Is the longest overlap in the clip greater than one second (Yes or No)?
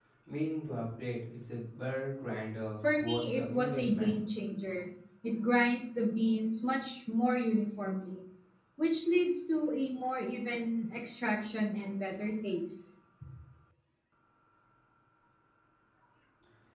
Yes